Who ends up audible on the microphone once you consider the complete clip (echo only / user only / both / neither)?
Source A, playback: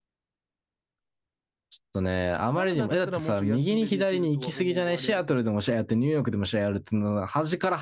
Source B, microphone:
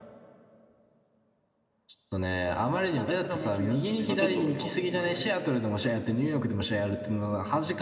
both